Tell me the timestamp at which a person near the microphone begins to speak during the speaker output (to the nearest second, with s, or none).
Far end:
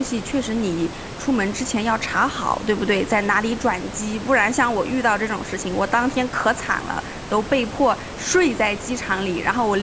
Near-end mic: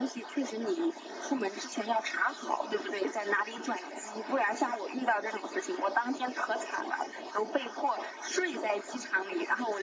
none